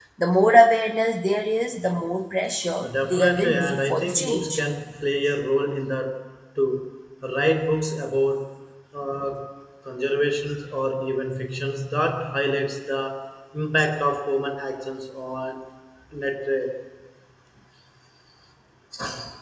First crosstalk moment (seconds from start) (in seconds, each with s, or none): 2.8 s